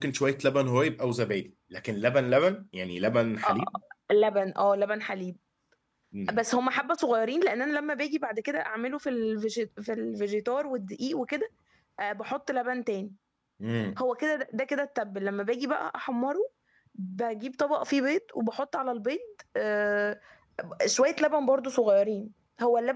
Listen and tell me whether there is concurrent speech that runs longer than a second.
No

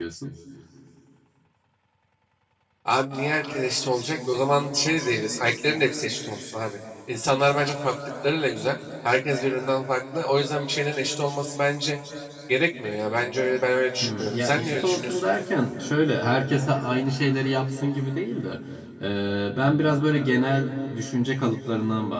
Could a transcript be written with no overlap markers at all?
No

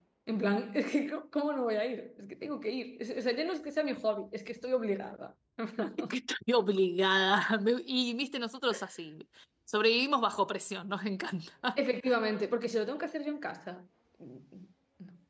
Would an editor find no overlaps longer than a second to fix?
Yes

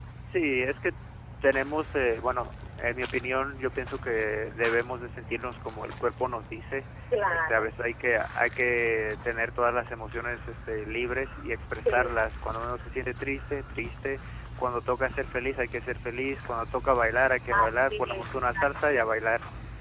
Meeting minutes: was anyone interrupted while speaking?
Yes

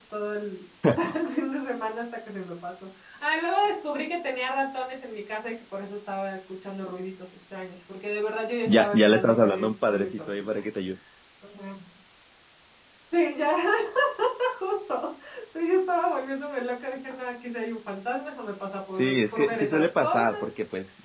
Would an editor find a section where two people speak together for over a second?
Yes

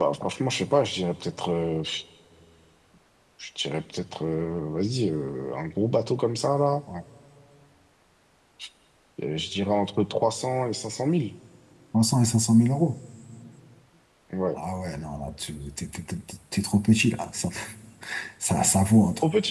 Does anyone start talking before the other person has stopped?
No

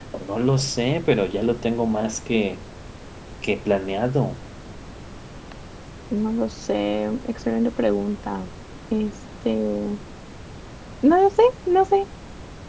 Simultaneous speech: No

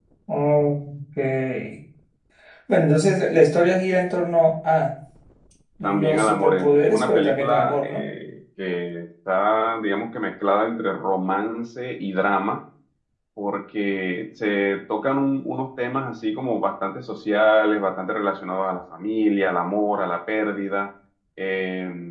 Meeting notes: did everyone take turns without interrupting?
No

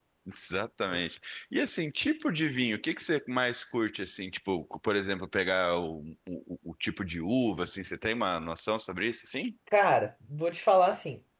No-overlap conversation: Yes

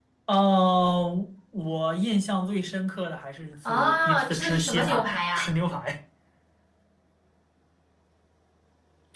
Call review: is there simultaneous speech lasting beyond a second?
Yes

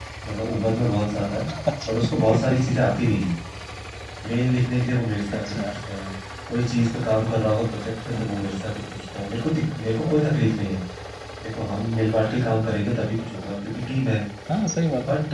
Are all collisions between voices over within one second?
Yes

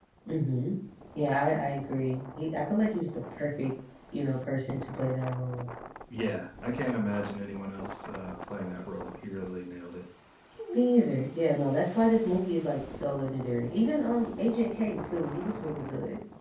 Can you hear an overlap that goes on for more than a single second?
No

